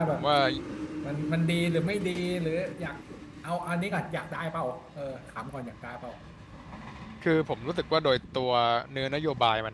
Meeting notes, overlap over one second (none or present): none